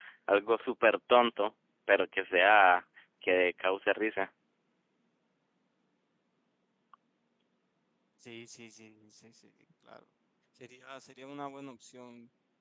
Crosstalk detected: No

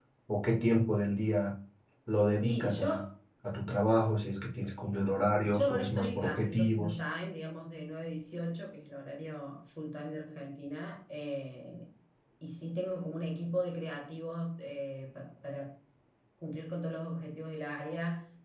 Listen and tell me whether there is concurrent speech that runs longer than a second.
Yes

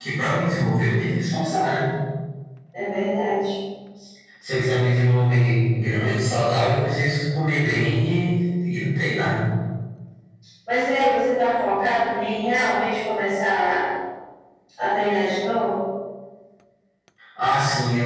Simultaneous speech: No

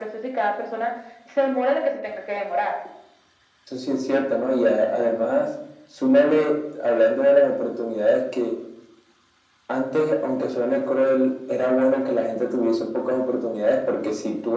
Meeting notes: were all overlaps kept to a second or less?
Yes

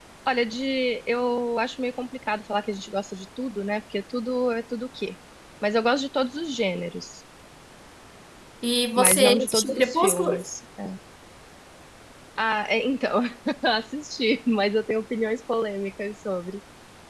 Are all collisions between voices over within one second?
No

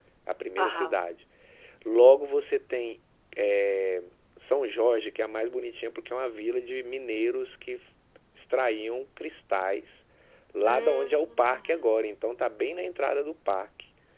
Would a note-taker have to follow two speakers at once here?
Yes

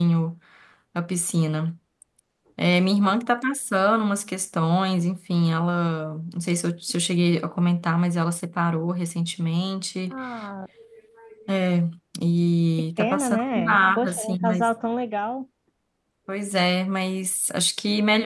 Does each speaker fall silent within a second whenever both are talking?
No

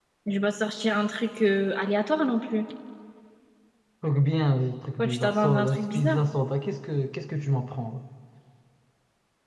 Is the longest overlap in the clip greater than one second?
Yes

